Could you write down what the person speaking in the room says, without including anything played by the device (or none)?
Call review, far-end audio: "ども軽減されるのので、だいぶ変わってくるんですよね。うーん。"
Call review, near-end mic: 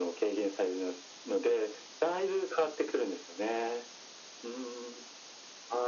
none